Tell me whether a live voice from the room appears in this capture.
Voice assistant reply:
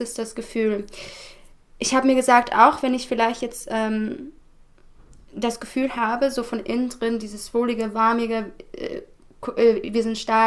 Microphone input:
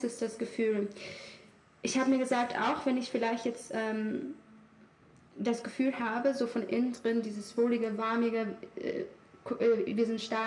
No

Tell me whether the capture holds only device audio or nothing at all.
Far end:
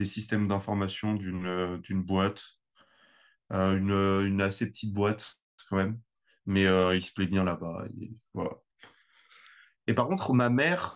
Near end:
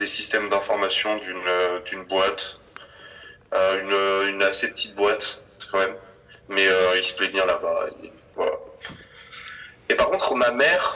Yes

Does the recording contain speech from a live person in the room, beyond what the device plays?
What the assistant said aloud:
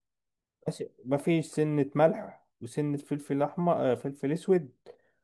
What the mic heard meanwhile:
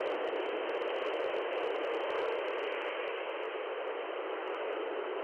No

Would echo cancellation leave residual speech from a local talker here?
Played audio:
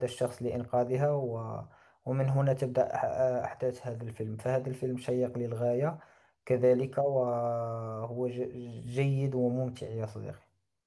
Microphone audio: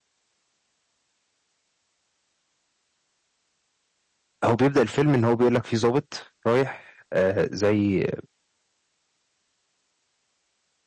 Yes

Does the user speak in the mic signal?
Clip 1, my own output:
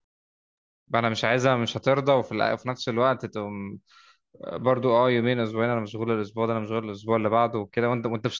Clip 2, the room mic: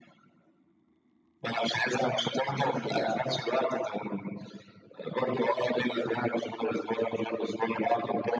Yes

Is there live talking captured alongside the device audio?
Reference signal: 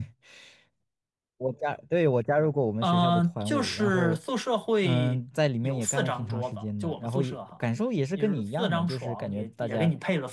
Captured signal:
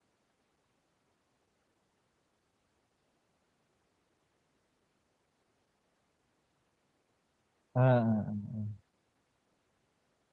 Yes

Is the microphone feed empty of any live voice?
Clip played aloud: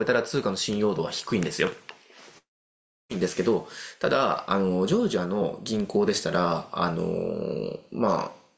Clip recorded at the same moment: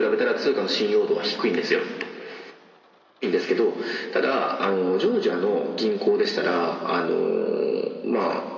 Yes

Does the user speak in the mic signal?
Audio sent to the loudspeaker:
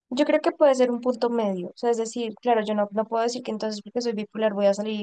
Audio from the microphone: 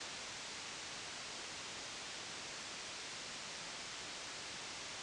No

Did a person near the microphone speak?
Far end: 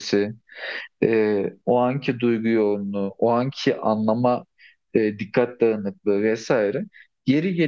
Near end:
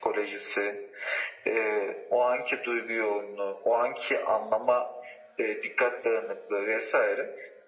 No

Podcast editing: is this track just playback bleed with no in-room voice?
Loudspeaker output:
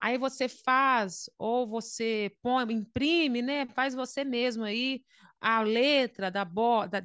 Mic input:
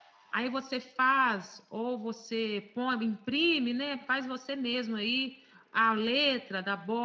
Yes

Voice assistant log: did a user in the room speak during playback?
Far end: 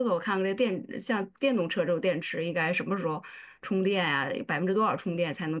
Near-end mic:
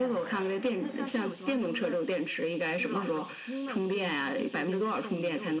Yes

